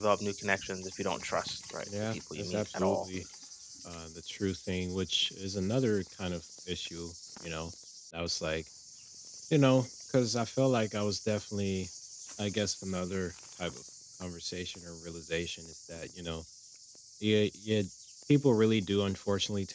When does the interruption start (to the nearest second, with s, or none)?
2 s